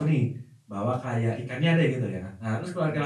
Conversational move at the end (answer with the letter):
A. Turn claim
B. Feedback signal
B